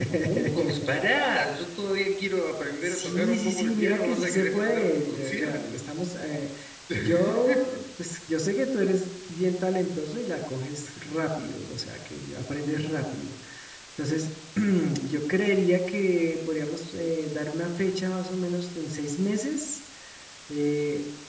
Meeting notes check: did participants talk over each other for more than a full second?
Yes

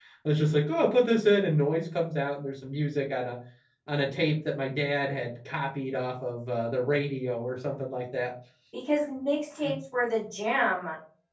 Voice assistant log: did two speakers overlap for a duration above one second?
No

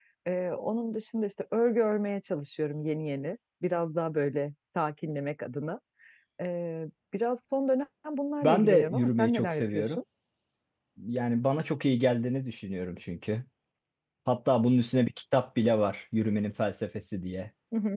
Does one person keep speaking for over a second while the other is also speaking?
Yes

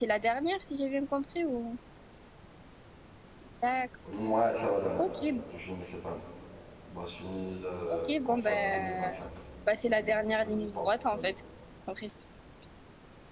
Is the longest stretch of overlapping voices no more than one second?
No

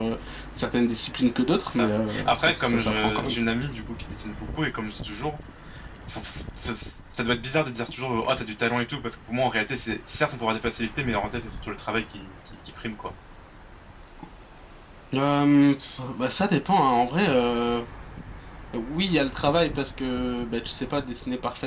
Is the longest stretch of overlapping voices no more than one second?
No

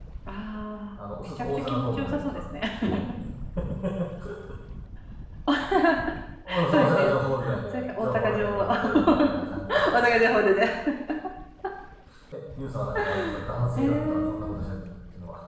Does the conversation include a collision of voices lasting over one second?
Yes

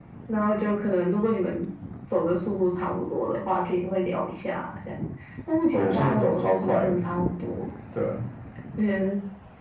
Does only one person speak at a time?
No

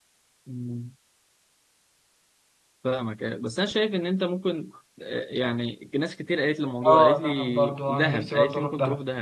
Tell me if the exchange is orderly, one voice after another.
No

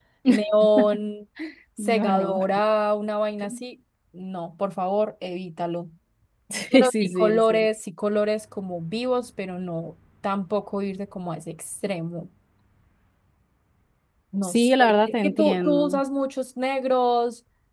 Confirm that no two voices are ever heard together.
No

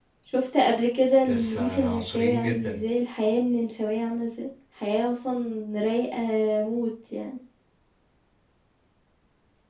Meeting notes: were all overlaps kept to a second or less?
No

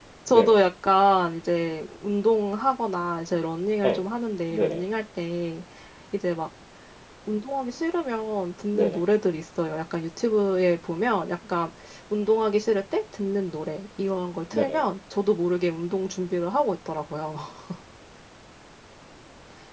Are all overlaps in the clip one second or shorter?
Yes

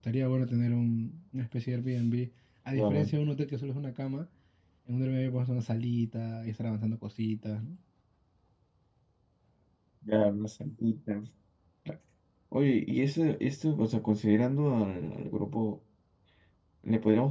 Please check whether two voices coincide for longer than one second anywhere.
No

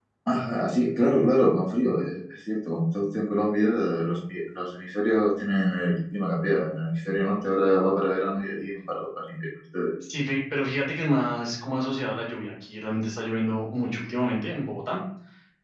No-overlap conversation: Yes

